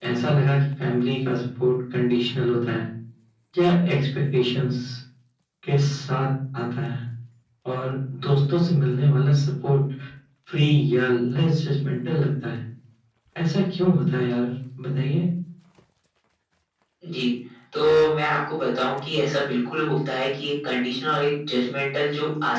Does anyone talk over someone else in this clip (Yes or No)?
No